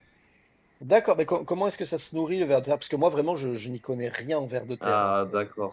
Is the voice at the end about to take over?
Yes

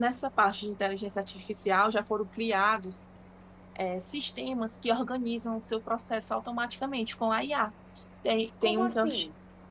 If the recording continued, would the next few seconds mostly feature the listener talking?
No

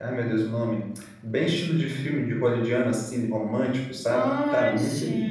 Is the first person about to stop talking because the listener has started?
Yes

